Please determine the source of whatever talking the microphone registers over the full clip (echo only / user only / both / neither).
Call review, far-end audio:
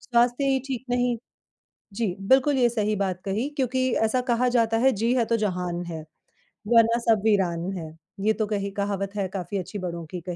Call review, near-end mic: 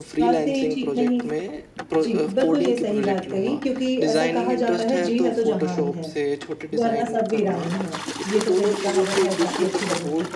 both